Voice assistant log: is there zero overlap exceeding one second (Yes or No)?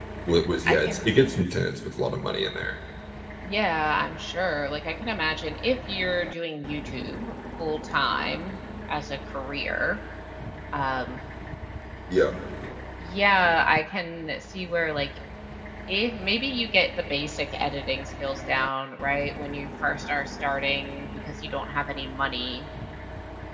Yes